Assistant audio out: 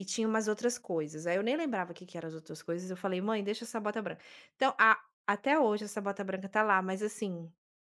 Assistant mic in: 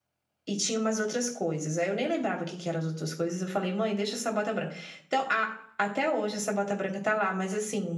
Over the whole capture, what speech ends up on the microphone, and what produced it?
echo only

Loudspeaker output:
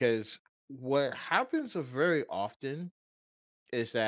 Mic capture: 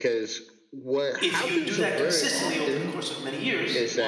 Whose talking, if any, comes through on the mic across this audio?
both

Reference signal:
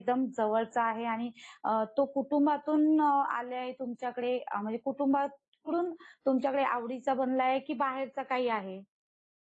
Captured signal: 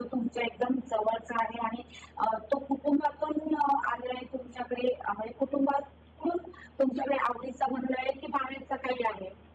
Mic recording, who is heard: echo only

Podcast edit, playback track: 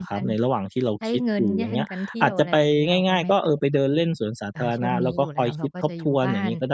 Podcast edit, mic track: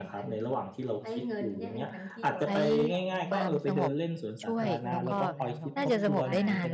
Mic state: both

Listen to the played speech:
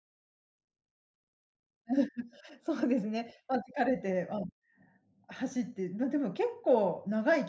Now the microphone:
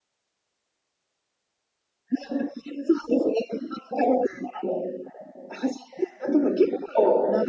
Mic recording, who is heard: echo only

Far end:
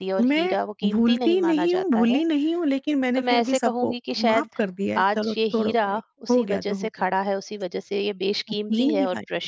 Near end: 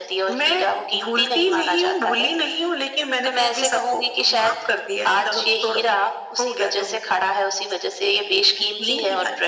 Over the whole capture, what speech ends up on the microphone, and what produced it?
echo only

